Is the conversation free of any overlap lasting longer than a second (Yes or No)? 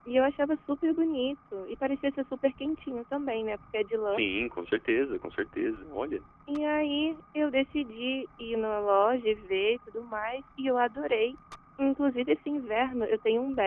Yes